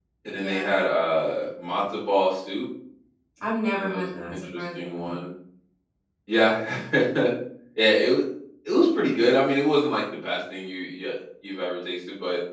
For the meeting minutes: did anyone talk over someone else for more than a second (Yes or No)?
Yes